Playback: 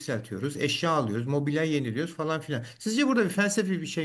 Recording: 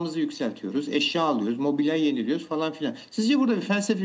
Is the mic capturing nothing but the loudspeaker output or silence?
Yes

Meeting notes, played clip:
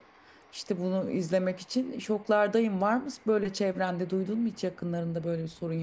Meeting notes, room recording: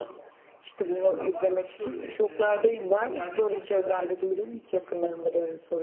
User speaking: Yes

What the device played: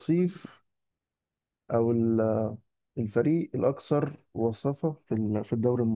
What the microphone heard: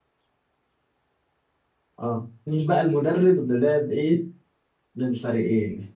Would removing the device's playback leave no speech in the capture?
No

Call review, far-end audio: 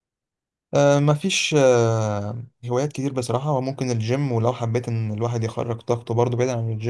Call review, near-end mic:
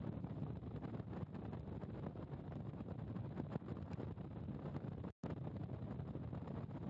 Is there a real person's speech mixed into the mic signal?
No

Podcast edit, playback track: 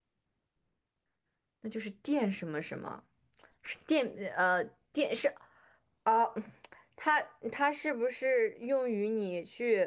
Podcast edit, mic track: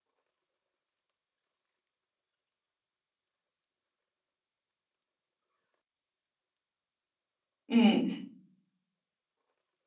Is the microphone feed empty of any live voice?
No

